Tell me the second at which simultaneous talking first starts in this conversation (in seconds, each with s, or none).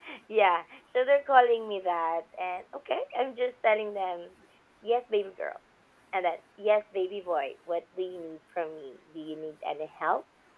none